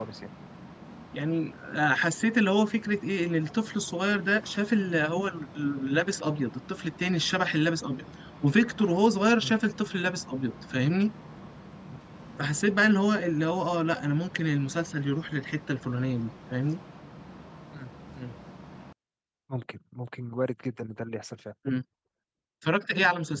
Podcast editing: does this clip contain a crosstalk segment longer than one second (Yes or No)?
No